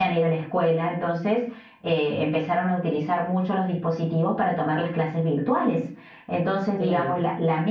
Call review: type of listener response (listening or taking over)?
listening